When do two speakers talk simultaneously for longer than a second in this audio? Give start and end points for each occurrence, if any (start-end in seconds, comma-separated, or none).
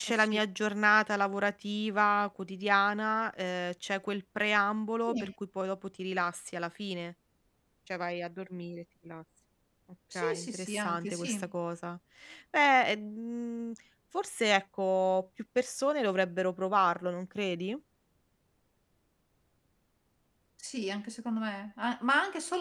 10.2-11.5